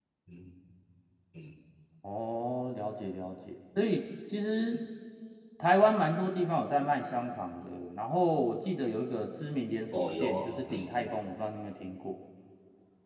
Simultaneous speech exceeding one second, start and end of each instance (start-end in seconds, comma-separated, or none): 10.0-11.2